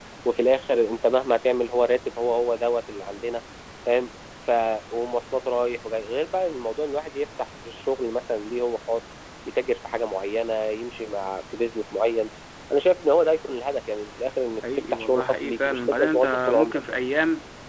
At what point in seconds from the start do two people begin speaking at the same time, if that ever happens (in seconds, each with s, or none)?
14.9 s